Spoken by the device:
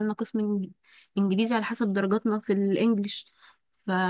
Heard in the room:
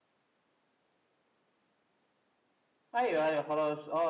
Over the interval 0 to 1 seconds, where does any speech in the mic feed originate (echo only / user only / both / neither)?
neither